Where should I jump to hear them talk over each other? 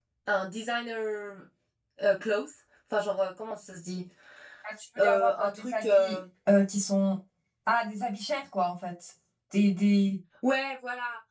5.0 s

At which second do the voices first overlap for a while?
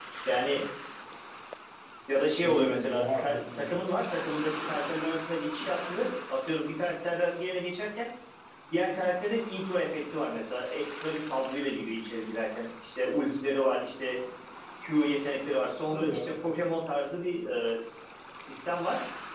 2.5 s

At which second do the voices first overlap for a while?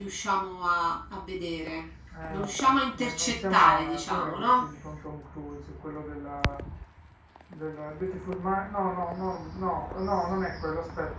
2.3 s

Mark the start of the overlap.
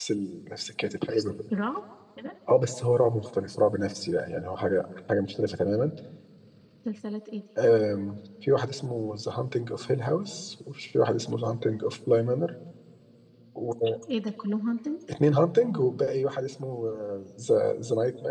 none

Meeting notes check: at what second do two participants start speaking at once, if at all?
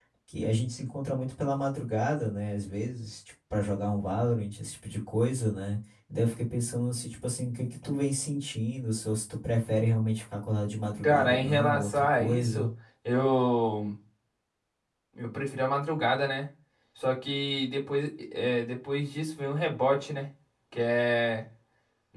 11.0 s

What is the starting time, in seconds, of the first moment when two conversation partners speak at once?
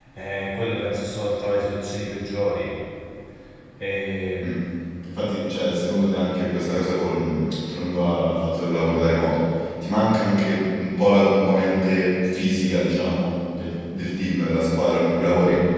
none

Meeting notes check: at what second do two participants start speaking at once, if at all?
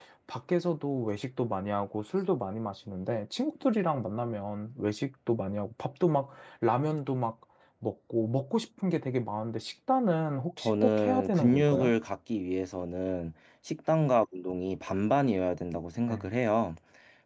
10.6 s

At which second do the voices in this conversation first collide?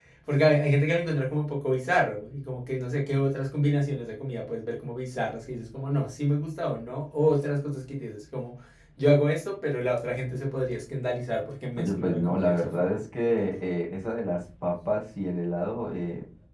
11.8 s

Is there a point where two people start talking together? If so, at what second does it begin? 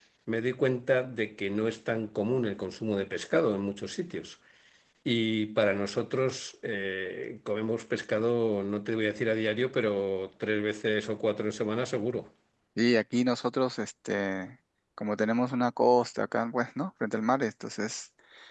none

